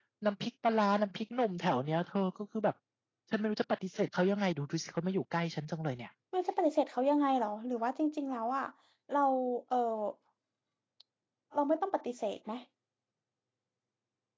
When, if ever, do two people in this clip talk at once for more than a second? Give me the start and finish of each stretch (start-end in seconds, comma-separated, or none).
none